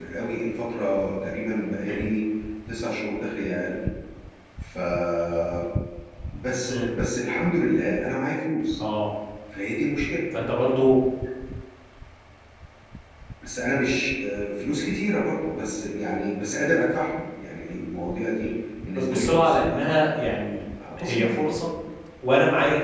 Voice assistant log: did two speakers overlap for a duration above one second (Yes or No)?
Yes